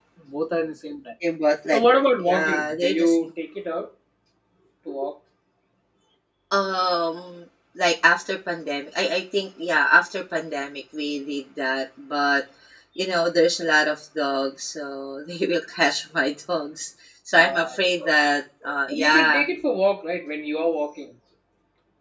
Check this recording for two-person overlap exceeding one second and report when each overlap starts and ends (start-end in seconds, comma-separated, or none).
1.7-3.3